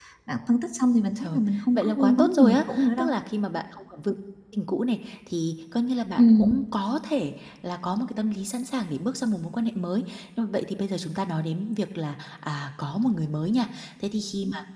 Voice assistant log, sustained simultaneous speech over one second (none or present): present